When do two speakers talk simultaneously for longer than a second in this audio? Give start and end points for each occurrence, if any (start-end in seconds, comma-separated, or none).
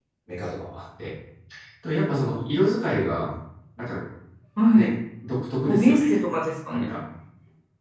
none